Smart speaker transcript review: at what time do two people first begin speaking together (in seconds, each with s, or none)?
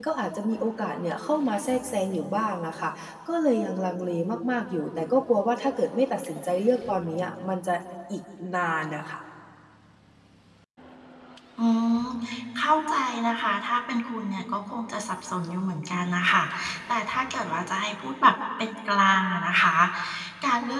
none